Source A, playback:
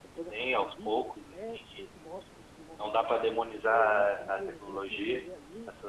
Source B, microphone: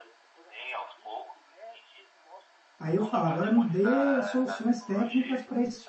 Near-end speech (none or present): present